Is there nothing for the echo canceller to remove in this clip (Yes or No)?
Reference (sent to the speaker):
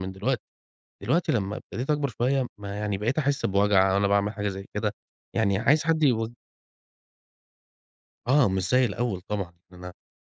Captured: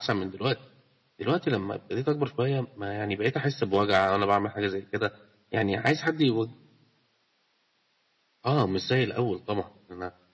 No